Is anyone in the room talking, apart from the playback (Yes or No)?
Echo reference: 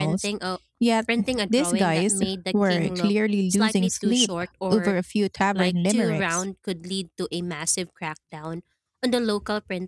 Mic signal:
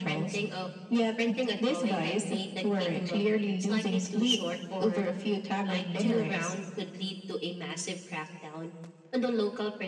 No